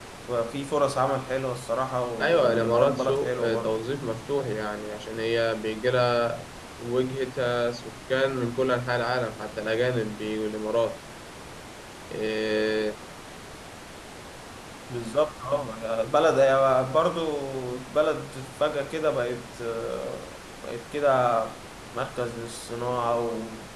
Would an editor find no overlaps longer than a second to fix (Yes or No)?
No